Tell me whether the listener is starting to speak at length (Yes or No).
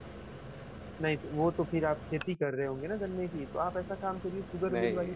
No